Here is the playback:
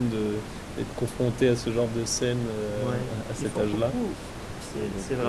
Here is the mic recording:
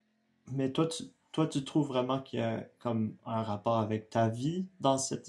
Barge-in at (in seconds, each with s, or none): 0.5 s